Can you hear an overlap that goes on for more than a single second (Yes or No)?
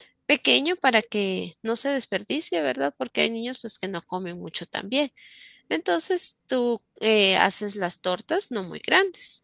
No